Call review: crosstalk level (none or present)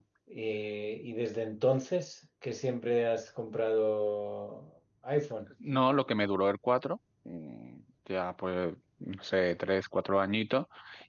none